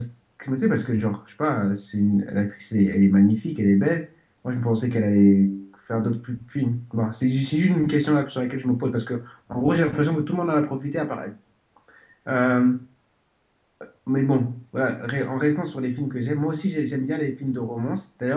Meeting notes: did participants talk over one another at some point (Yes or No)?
No